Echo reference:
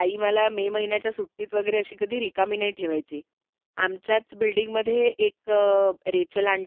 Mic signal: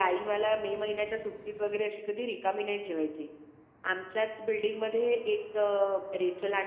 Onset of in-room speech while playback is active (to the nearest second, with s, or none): none